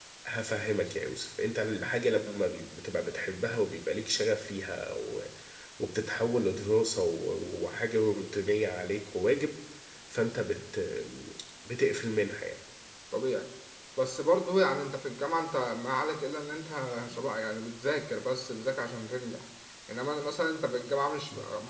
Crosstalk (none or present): none